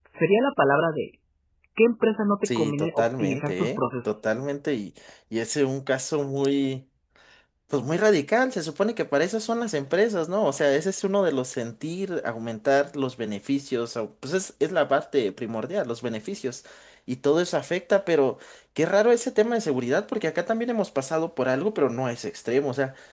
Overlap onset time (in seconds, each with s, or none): 2.5 s